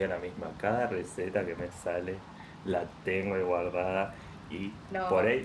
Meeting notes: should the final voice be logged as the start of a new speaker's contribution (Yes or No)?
No